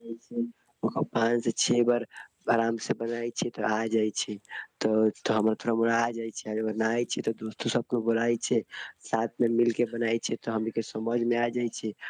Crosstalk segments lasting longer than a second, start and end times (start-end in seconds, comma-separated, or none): none